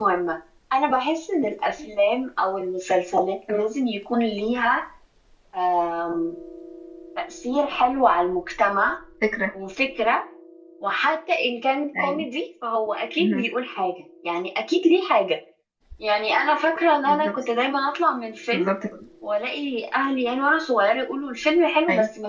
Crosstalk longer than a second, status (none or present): none